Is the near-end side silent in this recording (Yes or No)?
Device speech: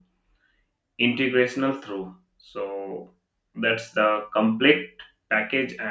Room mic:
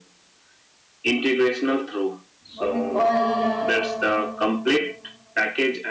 No